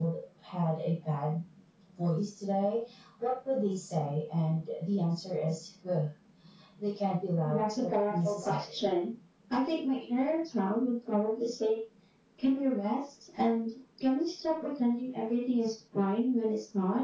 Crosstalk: present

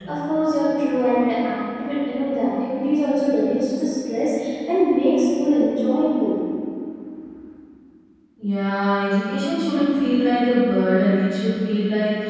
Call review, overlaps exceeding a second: none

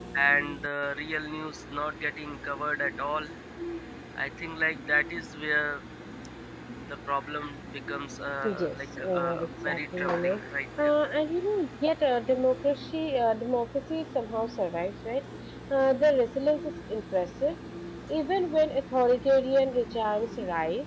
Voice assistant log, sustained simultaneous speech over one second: present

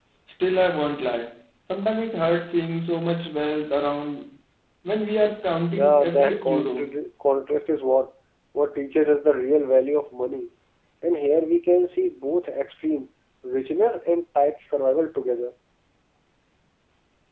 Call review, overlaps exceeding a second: present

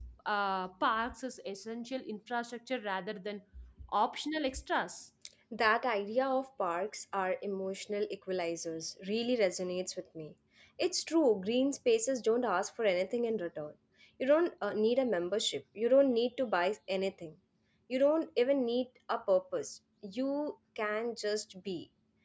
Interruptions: none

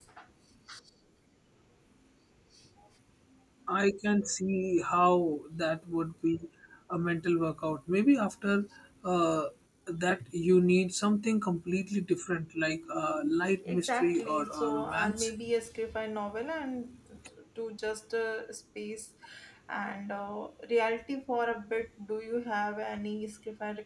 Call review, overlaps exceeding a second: present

